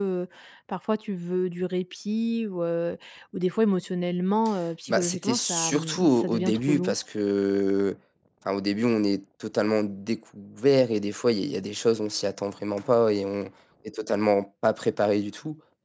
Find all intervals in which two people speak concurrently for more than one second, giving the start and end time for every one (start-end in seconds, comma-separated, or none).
4.9-7.0